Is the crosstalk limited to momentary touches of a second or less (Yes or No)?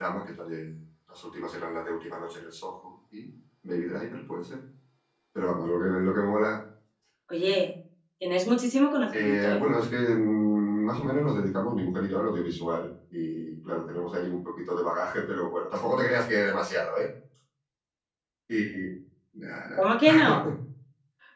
Yes